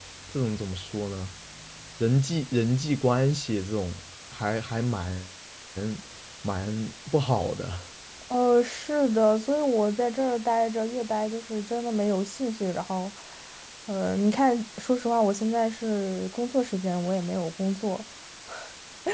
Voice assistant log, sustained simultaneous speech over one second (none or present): none